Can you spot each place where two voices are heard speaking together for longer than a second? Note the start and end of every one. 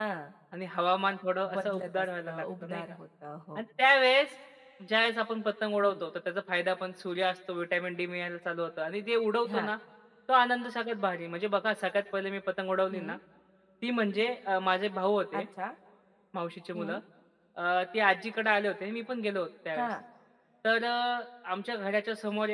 1.5-2.8

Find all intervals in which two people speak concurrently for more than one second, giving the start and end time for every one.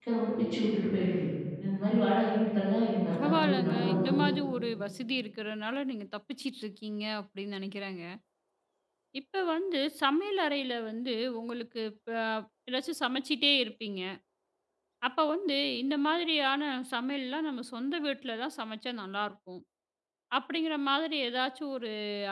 3.1-4.3

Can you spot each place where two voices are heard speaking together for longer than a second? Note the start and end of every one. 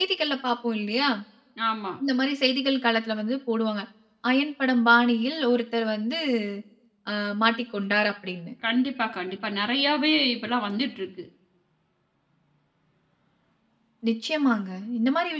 none

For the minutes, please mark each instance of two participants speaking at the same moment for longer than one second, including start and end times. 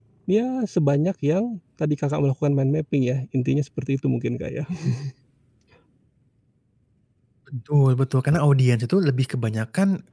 none

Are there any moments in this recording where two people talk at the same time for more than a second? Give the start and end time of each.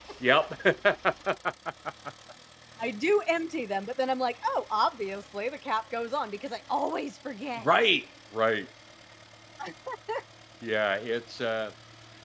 none

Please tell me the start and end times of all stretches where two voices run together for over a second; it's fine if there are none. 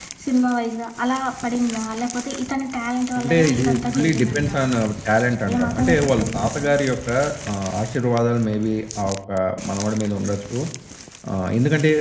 3.2-4.7, 5.5-6.7

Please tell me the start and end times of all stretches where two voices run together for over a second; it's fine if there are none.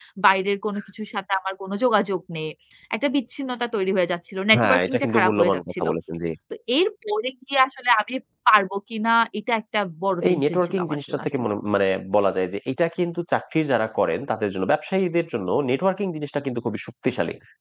4.6-5.8, 10.3-11.5

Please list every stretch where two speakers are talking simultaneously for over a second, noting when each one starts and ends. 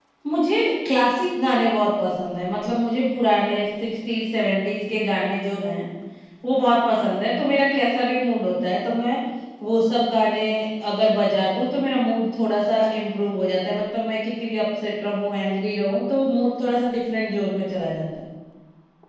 none

